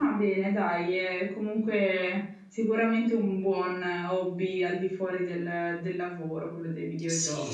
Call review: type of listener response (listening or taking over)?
taking over